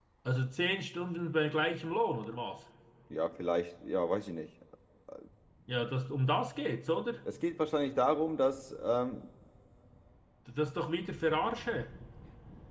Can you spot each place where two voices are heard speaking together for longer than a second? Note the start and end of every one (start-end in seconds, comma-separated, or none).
none